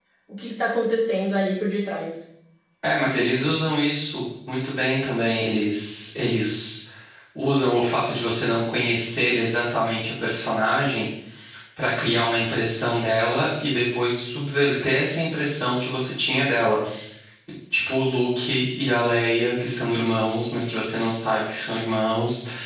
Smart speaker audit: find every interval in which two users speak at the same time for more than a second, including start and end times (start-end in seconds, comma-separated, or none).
none